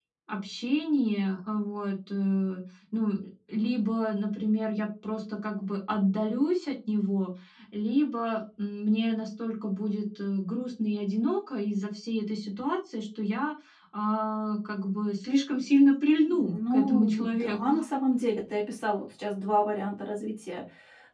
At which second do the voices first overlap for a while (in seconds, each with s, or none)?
16.2 s